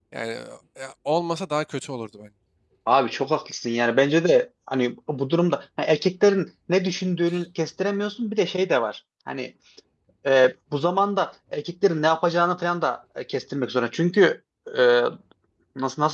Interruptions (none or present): none